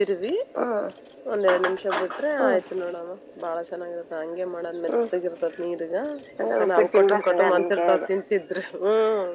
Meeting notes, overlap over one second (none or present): present